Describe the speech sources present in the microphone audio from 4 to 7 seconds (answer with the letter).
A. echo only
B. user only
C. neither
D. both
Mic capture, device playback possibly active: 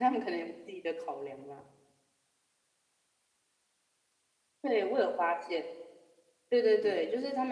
B